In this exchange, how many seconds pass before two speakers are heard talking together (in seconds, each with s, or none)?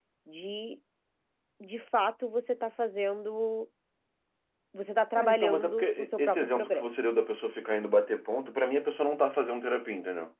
5.2 s